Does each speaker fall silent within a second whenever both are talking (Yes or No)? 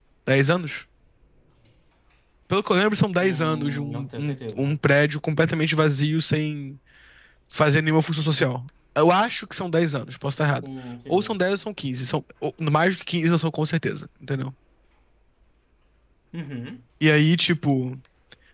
No